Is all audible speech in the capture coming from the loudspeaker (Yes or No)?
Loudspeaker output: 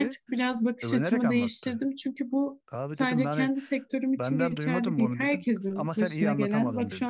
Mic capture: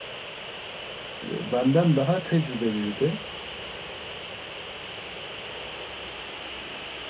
No